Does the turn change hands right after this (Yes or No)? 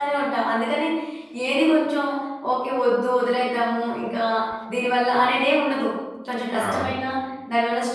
No